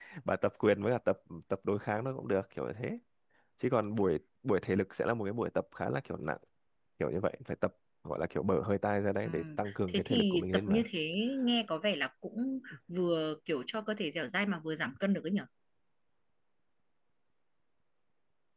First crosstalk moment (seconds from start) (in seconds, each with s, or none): 9.2 s